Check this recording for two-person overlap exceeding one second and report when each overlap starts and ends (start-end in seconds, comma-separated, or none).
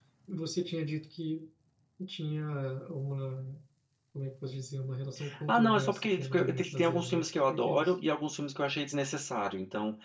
5.5-7.9